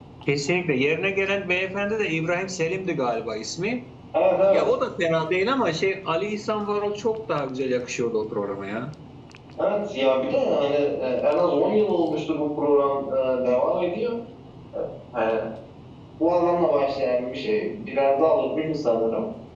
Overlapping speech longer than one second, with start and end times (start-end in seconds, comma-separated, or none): none